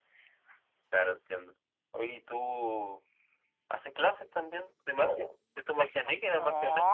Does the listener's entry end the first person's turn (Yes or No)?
Yes